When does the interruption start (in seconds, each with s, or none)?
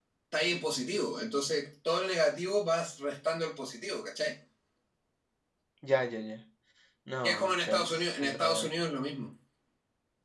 7.2 s